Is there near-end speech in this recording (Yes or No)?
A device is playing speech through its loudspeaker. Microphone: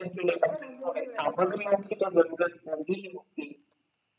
Yes